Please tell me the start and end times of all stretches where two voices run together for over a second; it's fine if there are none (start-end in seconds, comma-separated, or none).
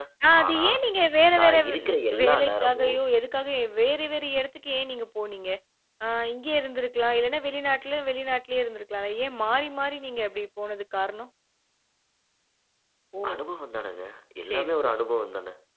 1.4-3.0